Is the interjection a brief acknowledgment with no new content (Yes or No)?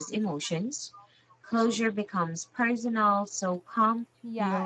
No